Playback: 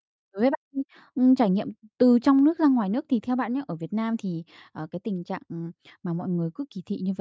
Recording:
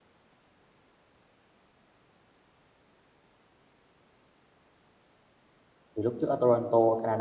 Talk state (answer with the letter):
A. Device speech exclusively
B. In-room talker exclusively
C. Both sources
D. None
B